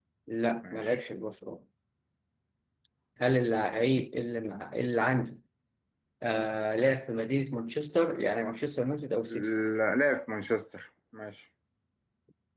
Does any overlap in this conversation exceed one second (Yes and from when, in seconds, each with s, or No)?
No